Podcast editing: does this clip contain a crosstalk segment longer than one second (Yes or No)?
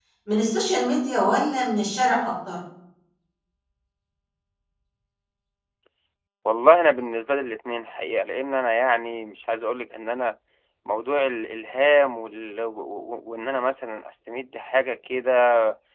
No